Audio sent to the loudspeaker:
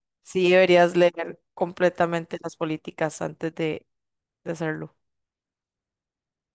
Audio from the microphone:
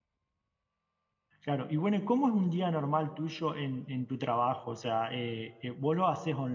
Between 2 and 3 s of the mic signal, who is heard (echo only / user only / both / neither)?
user only